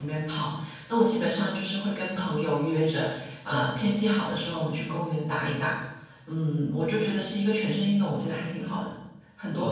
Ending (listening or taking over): taking over